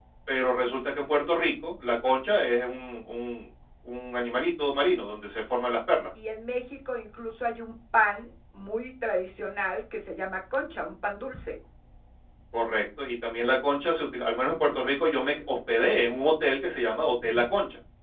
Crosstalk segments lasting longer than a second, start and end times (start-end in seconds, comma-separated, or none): none